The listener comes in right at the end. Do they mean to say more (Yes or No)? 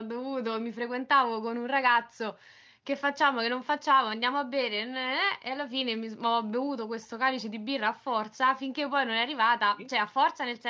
No